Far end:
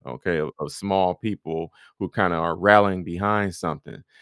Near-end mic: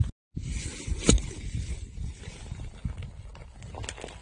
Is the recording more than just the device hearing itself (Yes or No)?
No